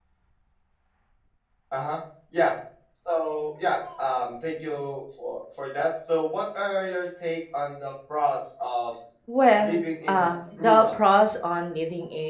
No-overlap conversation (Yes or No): No